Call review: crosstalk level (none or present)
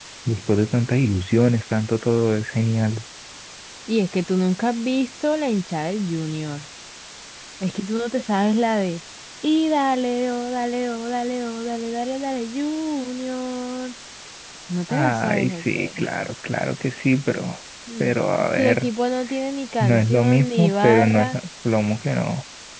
present